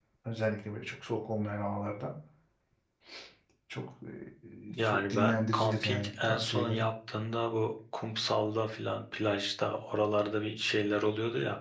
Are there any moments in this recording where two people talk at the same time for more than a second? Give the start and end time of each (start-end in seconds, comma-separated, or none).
4.7-6.8